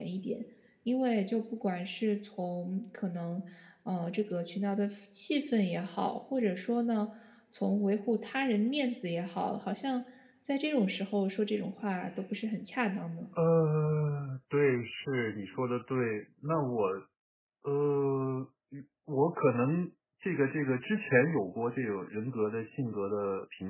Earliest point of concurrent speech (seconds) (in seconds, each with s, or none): none